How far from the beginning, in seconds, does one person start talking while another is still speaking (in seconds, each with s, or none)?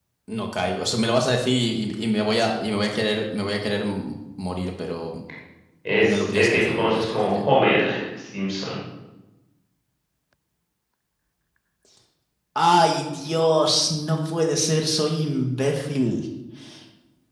6.0 s